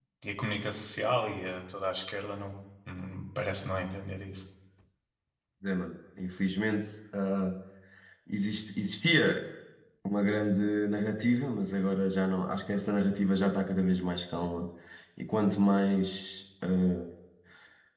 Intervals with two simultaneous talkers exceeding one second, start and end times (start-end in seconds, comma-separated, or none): none